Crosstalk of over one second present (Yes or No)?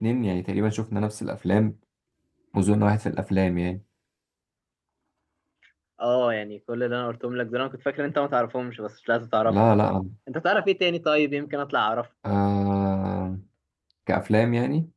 No